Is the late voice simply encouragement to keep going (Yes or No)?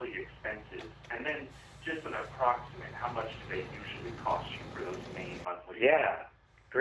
No